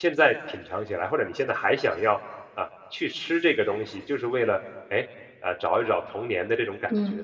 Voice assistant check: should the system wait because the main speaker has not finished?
No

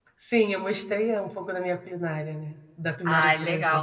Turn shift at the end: Yes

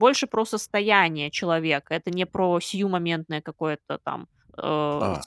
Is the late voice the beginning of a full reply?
Yes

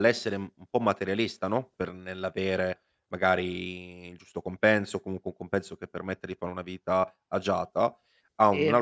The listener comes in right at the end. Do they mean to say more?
No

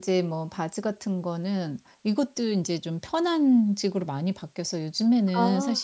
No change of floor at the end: Yes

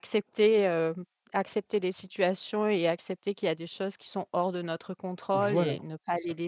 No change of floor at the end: No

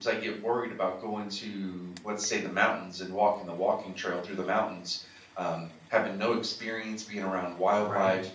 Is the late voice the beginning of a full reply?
No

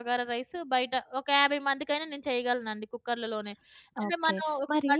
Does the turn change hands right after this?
Yes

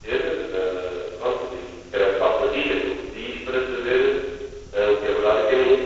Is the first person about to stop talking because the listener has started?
Yes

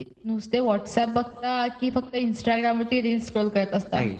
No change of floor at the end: No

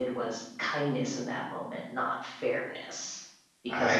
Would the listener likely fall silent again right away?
No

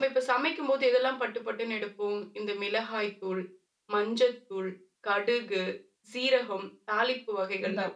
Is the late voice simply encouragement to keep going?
No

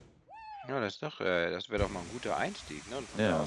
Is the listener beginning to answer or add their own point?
No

